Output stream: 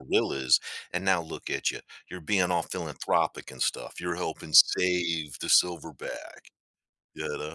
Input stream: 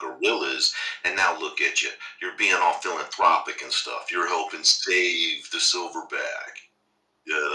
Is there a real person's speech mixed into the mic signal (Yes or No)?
No